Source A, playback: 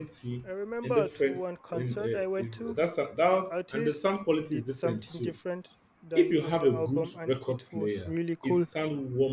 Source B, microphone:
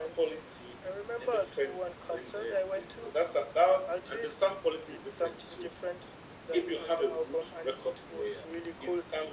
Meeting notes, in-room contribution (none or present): none